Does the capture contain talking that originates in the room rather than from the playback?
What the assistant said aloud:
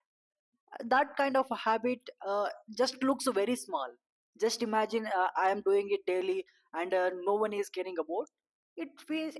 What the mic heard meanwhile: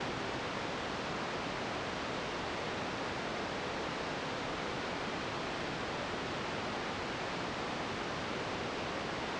No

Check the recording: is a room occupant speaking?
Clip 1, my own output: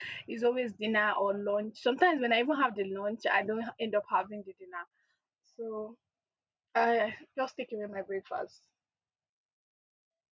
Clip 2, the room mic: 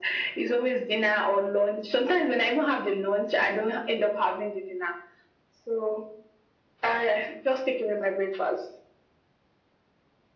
No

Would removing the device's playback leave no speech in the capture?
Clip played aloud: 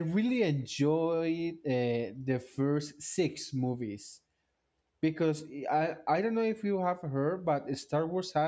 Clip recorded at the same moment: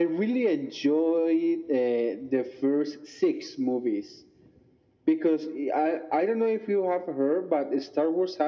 Yes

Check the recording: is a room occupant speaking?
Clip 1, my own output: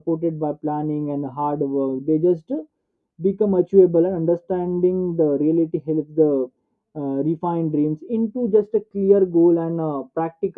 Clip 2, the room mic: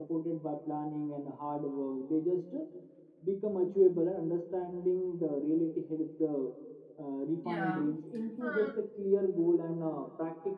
Yes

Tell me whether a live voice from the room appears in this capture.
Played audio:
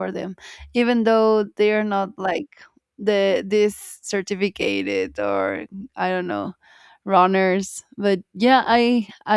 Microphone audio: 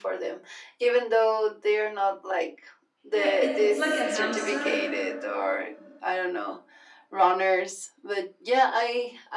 Yes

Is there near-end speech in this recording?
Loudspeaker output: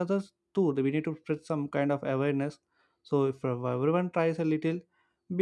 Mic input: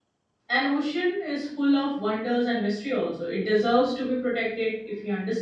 Yes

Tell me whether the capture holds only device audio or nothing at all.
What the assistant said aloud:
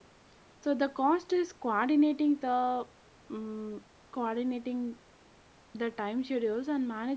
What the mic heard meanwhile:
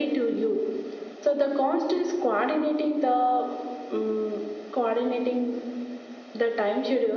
Yes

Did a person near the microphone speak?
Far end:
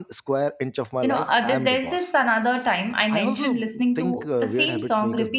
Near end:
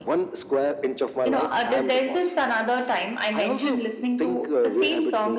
No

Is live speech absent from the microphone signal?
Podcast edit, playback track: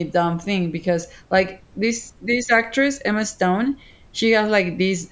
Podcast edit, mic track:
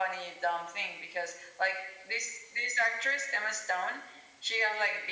Yes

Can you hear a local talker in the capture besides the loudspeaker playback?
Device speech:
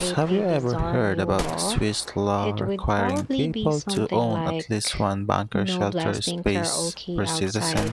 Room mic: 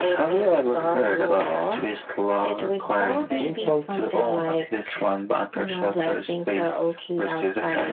Yes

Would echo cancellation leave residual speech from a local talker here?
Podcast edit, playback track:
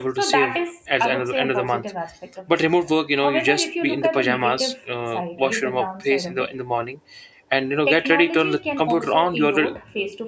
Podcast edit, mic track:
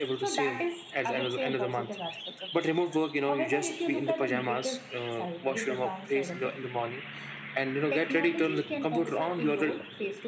No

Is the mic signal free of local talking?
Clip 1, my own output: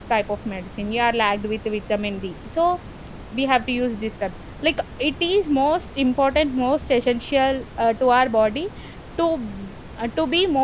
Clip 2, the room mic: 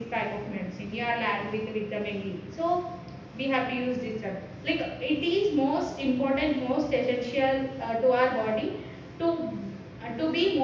Yes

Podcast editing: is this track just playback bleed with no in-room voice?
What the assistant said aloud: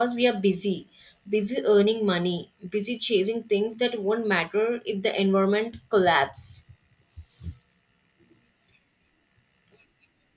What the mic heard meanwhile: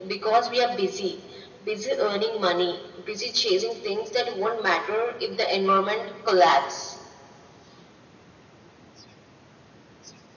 Yes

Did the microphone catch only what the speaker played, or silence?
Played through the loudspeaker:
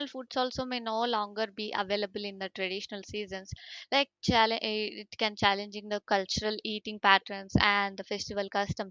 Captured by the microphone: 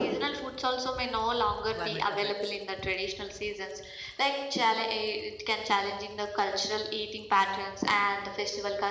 No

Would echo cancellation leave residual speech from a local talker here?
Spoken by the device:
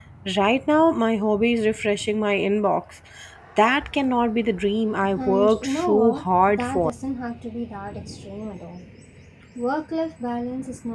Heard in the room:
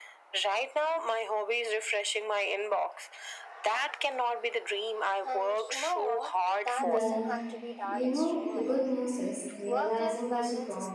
Yes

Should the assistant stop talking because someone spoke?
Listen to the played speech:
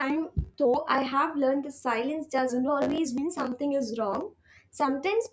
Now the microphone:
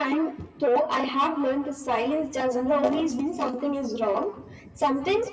No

